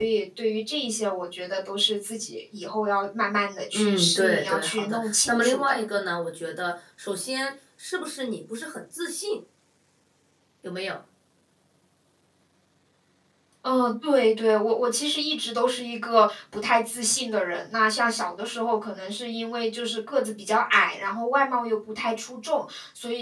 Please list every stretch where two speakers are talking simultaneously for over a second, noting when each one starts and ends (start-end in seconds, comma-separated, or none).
3.7-5.8